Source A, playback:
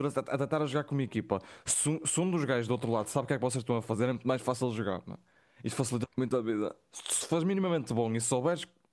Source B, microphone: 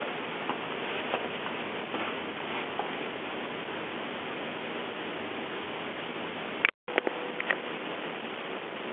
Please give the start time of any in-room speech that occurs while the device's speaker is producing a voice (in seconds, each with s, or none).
none